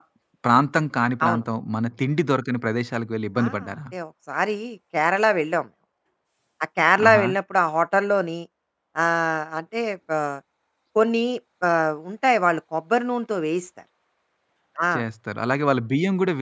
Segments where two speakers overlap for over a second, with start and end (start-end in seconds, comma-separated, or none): none